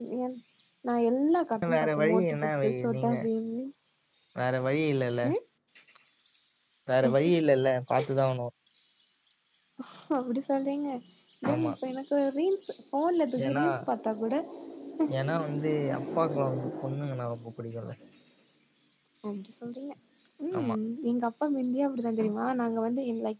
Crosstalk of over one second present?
Yes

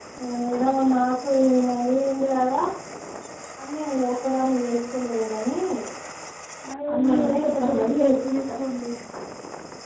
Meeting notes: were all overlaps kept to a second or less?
No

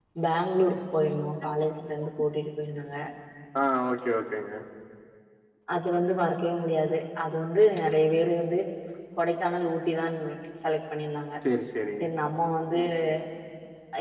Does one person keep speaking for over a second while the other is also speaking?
No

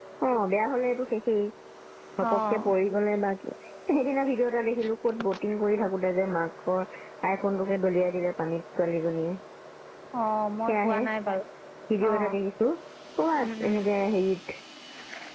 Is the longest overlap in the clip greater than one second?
No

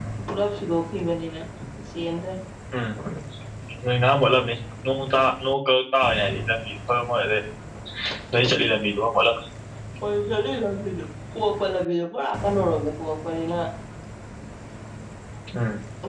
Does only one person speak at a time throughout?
Yes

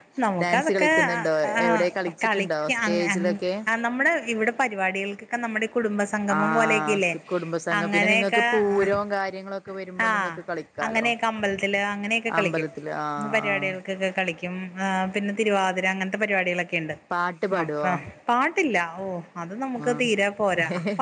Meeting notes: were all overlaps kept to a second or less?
No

